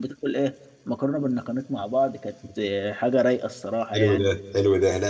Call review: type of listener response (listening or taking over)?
taking over